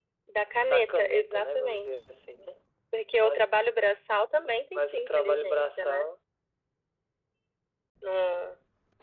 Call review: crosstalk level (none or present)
present